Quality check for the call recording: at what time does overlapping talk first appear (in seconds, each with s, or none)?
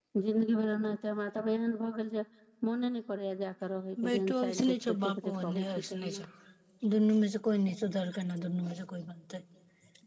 4.0 s